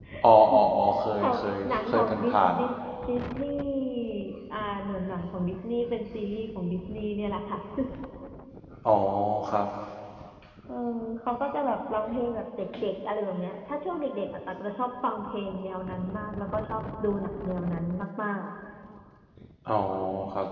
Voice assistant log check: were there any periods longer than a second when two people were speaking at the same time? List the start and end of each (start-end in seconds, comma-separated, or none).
1.2-2.6